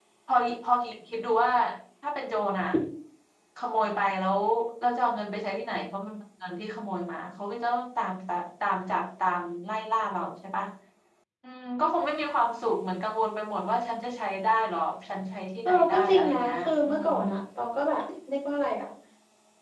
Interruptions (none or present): present